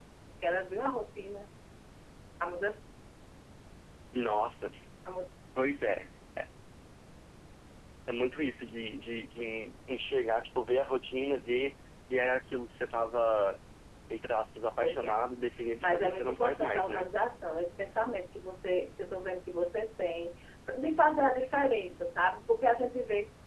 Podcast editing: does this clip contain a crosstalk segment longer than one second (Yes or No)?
Yes